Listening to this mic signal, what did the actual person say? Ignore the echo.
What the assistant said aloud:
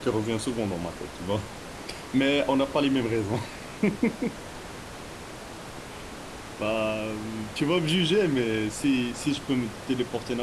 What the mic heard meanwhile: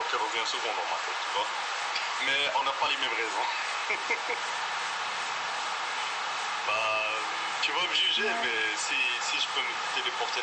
Ouais,

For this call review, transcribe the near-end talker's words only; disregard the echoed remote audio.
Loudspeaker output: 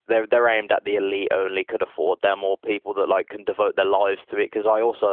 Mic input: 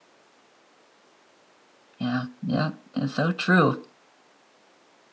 yeah, yeah. It's so true.

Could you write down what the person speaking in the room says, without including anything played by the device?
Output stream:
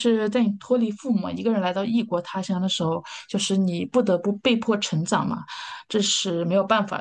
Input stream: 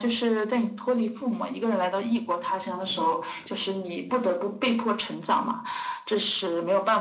none

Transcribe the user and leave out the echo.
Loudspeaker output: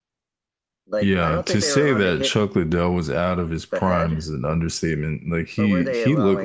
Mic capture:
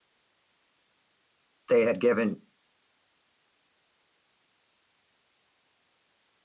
they had given

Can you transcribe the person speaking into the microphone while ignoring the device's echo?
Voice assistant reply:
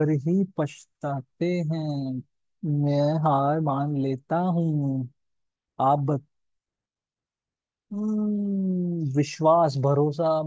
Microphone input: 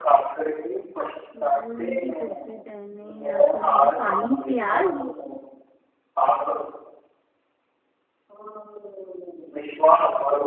लाल रंग की टोपी पहने आंखों में है पानी प्याज

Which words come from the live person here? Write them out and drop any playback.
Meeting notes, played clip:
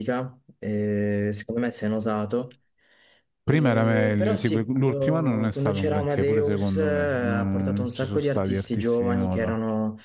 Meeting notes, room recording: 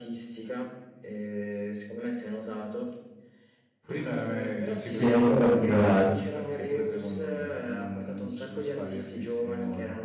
Sì, molto particolare.

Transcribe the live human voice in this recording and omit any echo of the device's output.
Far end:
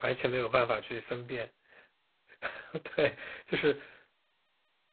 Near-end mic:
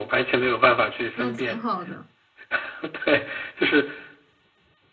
那挺好的。

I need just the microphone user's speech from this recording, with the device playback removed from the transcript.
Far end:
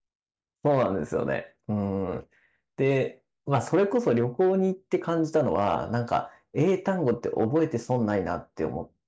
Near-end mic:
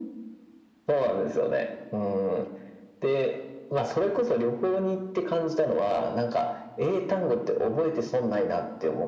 none

